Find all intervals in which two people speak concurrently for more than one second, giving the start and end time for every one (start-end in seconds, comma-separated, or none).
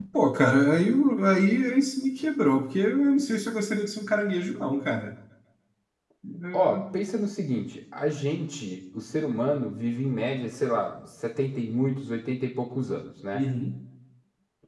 none